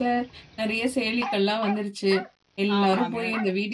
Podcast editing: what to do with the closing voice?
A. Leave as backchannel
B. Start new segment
A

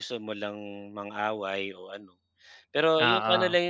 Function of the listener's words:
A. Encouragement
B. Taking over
A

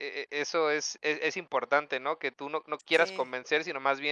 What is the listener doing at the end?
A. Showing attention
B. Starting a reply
A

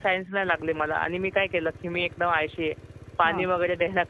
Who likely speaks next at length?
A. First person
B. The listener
A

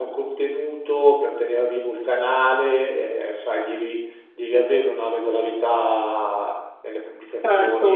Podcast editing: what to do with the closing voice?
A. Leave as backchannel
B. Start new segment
B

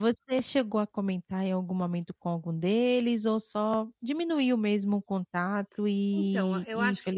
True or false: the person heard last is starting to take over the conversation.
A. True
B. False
A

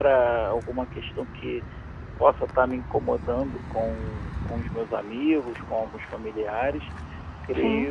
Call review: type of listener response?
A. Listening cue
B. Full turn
A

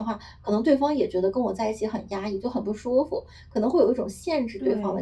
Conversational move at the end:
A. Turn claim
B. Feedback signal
A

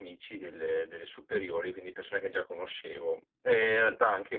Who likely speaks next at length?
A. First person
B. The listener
A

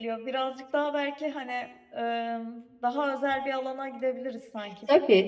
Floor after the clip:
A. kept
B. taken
B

